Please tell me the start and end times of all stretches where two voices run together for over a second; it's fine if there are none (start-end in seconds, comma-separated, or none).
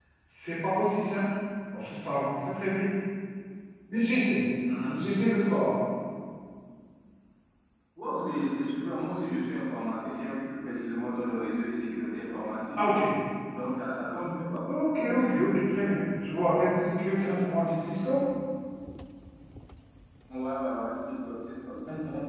none